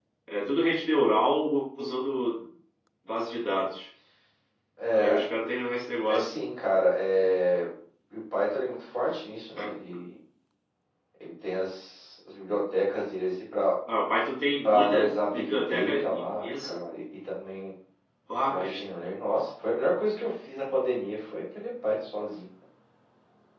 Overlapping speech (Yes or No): Yes